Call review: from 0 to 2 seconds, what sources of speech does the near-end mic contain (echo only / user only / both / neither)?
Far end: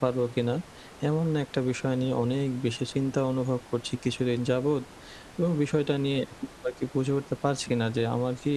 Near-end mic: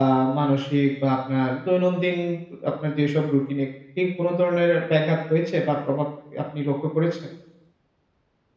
user only